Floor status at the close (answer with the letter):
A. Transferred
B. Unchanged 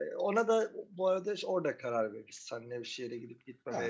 B